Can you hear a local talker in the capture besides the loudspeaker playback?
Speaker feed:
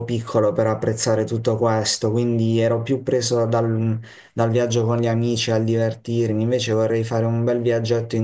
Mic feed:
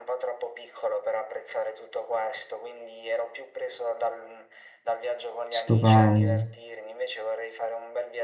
Yes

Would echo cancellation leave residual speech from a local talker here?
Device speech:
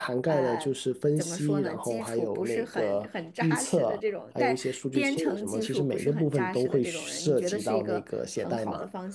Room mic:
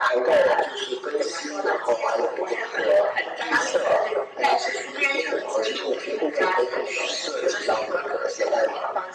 No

